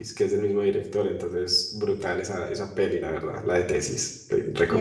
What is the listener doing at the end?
taking over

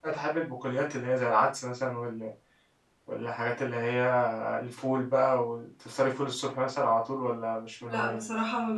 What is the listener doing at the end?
taking over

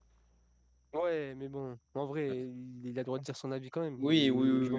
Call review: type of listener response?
taking over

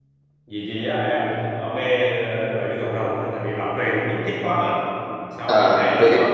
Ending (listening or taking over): listening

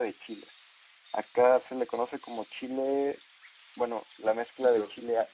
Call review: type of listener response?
taking over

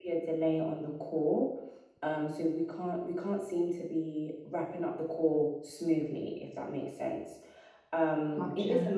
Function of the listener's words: listening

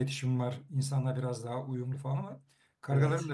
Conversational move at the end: listening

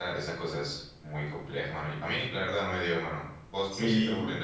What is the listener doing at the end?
taking over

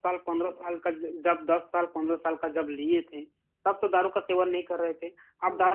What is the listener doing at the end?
listening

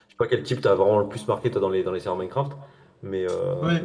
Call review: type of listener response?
taking over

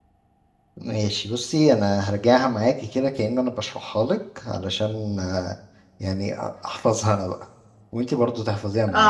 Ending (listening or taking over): taking over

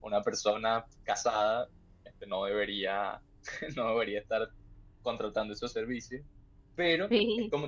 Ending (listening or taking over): listening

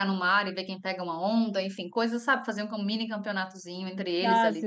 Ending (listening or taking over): taking over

